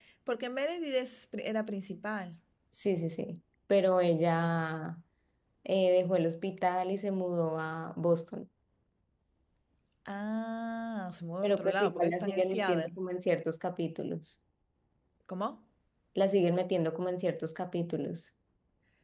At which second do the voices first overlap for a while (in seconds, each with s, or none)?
11.4 s